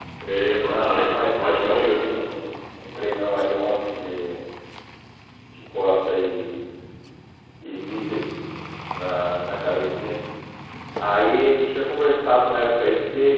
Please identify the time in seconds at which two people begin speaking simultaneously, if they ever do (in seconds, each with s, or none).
0.7 s